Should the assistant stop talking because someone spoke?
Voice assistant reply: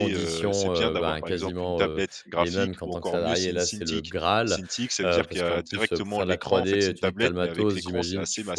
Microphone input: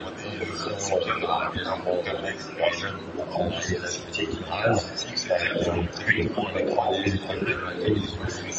No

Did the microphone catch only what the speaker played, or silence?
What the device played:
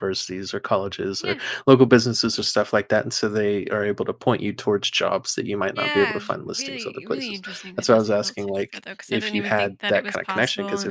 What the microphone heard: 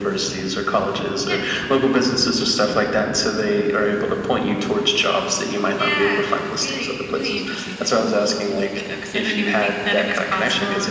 Yes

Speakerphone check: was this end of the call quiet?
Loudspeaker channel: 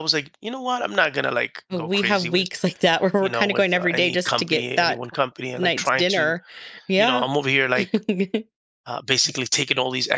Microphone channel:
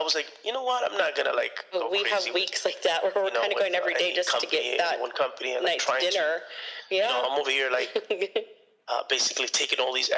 Yes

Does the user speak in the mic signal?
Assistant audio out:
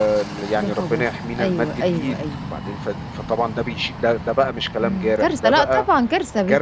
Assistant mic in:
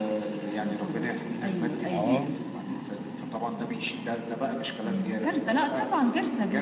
Yes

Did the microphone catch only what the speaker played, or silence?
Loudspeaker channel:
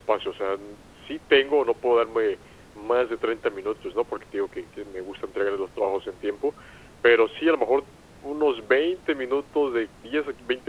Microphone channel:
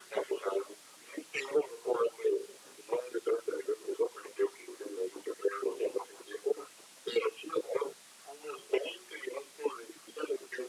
Yes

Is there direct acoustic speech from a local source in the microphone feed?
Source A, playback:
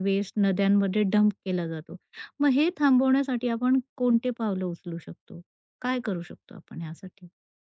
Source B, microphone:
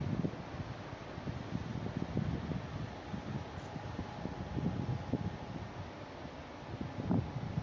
No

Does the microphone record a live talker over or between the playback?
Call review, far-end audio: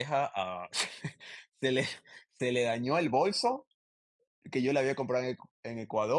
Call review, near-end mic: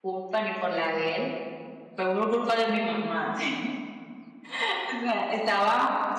Yes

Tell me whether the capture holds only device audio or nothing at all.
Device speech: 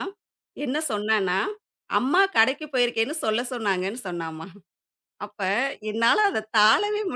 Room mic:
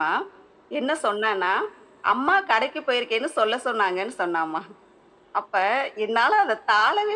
Yes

